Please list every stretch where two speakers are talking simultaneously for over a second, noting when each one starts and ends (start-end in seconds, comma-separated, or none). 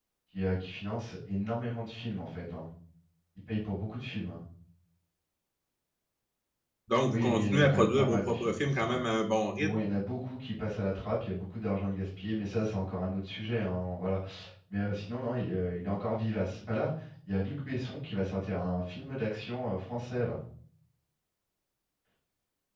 7.1-9.0